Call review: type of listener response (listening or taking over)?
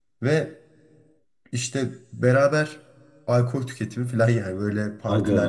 taking over